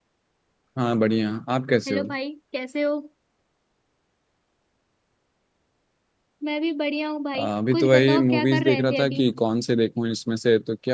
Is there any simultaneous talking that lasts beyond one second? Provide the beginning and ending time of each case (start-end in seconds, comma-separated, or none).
7.4-9.2